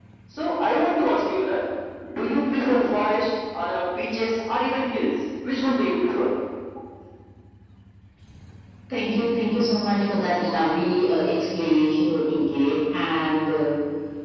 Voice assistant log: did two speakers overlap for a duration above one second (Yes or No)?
No